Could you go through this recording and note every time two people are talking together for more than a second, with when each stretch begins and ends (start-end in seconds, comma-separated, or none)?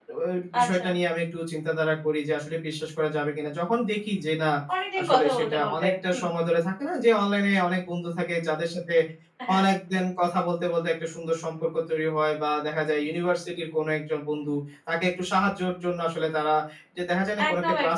5.0-6.2